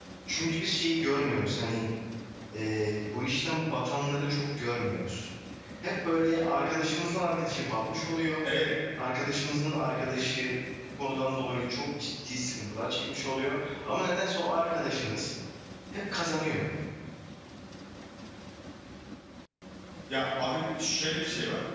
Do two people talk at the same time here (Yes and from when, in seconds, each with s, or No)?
No